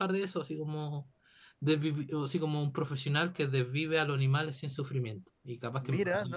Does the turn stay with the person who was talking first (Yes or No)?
No